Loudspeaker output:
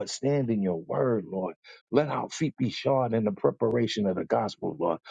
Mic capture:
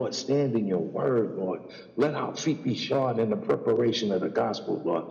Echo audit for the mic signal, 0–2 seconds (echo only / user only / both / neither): echo only